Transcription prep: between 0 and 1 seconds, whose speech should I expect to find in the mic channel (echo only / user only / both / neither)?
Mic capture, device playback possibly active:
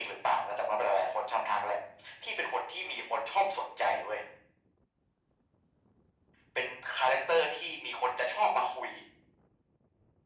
echo only